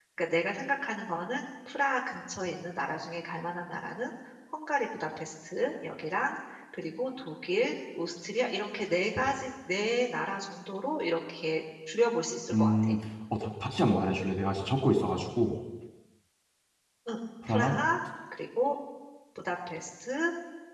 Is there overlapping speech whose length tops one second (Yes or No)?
No